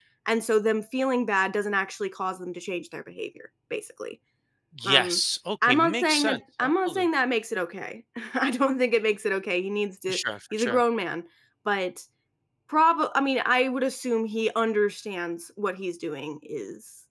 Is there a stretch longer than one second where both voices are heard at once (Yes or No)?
Yes